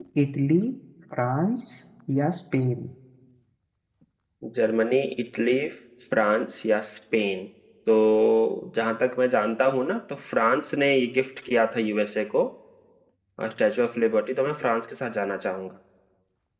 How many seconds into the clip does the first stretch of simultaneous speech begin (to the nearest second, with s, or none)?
none